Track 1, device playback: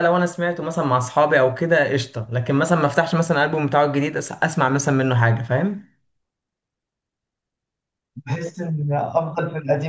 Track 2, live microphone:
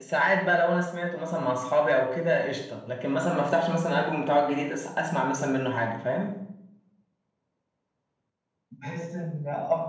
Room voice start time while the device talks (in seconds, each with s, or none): none